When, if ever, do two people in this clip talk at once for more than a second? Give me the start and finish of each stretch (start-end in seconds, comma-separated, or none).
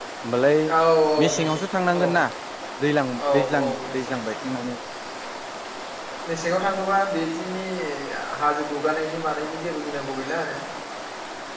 3.3-4.6